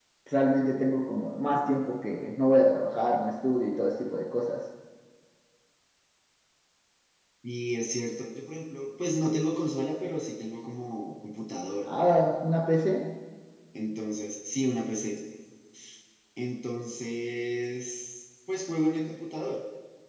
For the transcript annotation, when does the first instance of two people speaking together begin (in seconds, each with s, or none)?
none